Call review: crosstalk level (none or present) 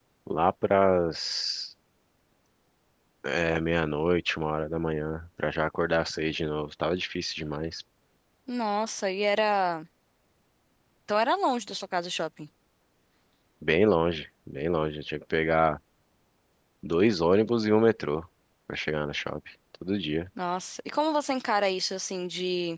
none